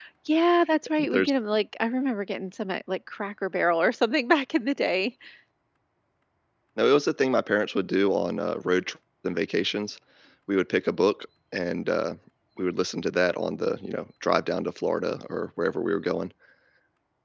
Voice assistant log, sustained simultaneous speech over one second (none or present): none